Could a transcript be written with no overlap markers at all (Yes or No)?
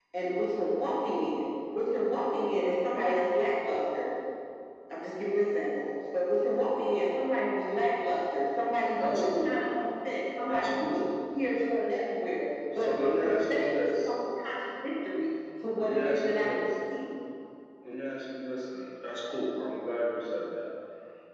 No